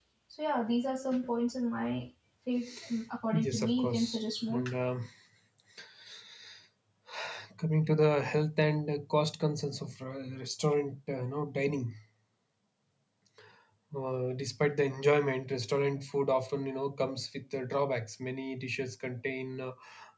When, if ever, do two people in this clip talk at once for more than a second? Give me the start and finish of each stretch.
3.3-4.6

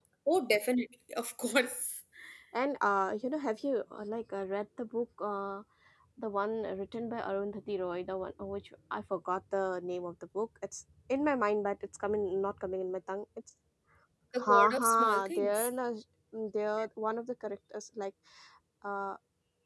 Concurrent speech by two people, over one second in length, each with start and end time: 14.4-15.7

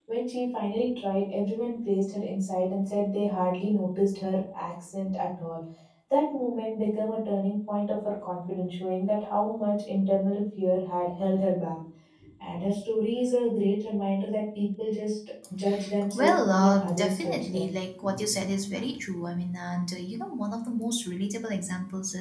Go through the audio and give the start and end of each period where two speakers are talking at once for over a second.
16.1-17.7

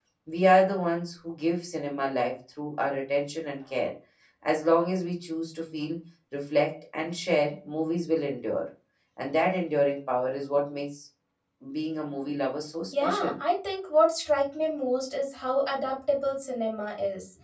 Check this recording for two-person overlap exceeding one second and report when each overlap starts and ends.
none

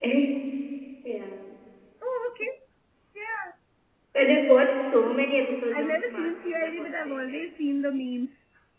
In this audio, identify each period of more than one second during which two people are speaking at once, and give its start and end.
5.8-7.4

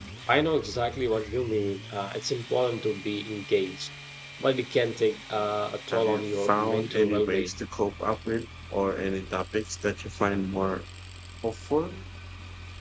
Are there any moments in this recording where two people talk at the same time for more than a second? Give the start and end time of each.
5.9-7.5

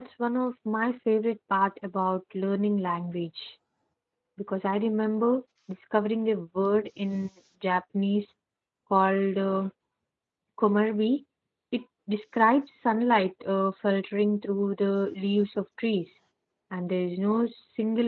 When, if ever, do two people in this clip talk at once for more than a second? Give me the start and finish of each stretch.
none

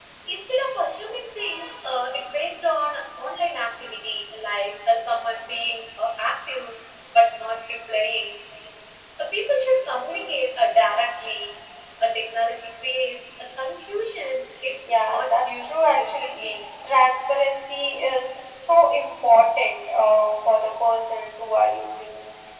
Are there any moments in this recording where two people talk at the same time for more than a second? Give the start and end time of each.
15.0-16.4

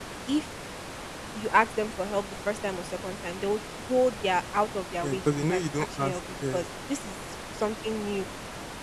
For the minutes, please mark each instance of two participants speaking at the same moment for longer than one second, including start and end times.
5.0-6.7

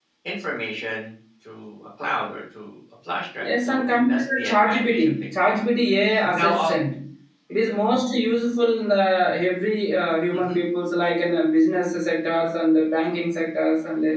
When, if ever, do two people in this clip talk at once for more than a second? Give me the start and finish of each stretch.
3.4-5.6

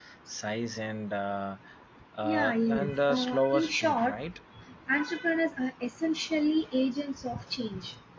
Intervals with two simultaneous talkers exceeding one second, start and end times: 2.2-4.2

